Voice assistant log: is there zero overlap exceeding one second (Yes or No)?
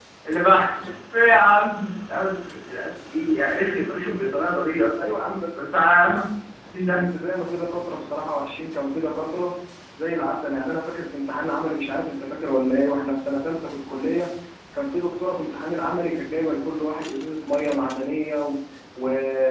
Yes